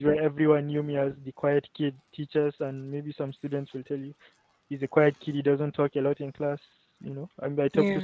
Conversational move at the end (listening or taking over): listening